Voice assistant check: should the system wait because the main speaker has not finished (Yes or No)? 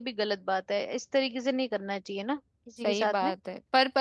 No